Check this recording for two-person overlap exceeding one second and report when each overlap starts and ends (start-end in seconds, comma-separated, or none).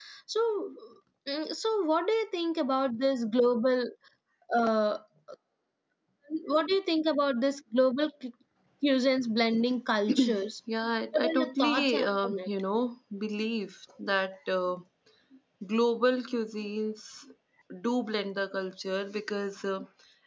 11.1-12.5